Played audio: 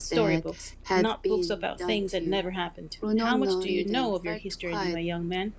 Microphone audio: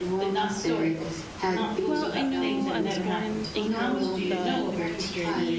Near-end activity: present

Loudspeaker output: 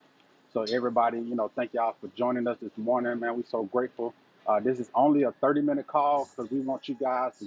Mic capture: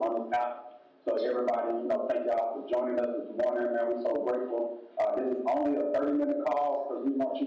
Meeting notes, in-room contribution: none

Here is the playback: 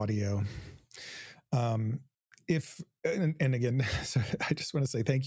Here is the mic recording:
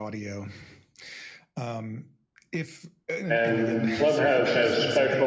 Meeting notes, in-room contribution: present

